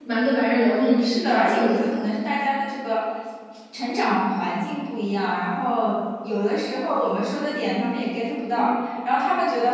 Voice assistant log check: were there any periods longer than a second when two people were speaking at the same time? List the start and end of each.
0.7-2.1

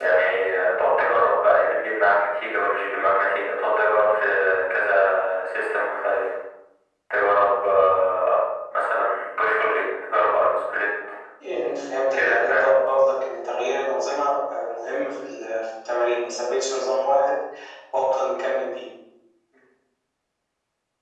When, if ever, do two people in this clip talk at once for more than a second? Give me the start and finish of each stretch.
none

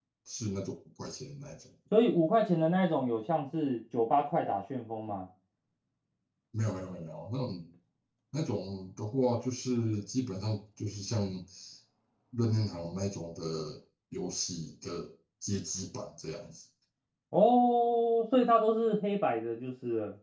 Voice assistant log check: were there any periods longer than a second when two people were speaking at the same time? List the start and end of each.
none

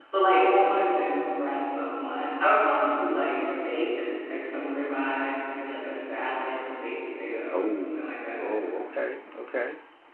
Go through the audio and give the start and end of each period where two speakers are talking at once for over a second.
none

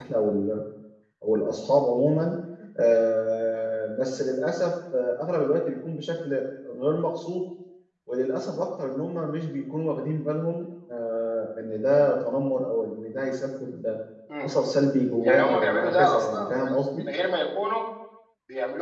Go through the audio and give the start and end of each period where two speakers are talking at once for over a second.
15.2-17.0

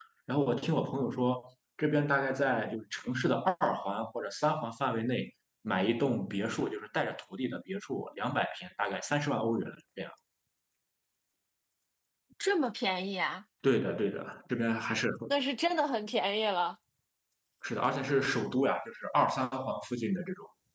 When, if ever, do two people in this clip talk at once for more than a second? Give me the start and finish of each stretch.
none

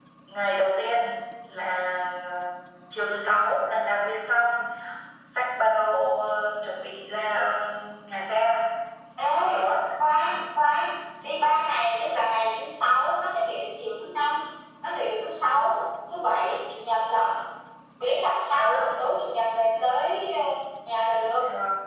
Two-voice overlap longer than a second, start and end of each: none

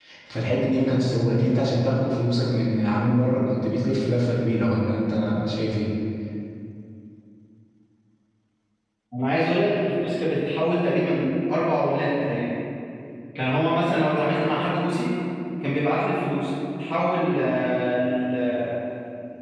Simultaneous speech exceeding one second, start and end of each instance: none

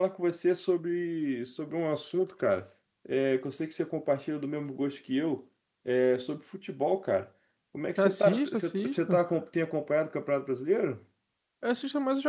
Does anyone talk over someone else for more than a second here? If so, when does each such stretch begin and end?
8.0-9.2

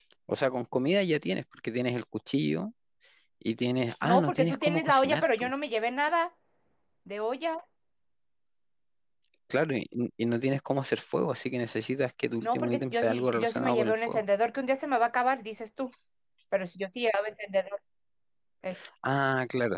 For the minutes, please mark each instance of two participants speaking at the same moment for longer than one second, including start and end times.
4.0-5.5, 12.4-14.2

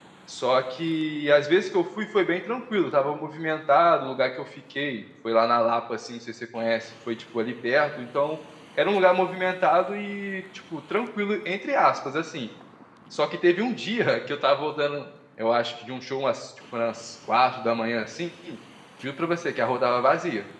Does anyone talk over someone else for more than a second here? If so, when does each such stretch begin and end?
none

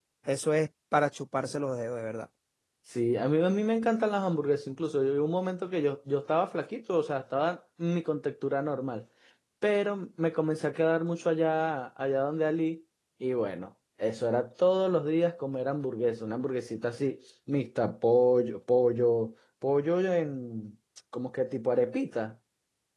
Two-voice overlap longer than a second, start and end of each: none

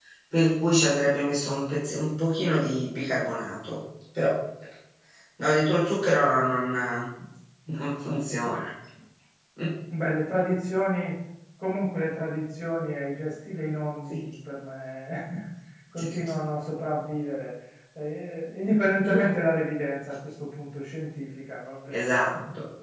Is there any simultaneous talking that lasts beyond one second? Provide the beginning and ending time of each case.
none

